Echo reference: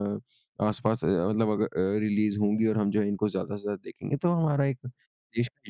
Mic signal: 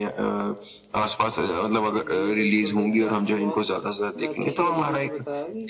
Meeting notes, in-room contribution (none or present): present